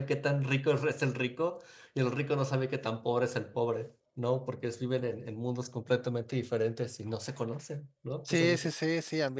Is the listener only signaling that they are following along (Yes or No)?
No